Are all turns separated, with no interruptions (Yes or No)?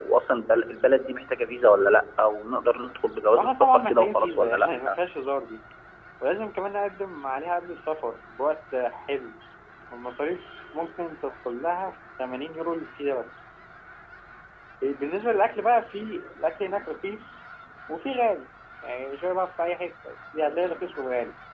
No